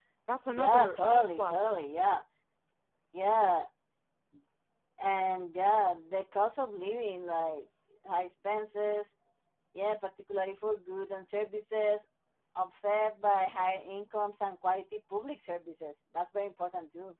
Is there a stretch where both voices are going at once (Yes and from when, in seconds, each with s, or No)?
Yes, from 0.5 s